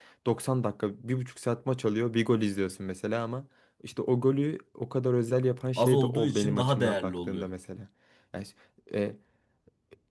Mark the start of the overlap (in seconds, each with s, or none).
5.8 s